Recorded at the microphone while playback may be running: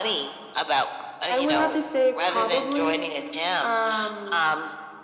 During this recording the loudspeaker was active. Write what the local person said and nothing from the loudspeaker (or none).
none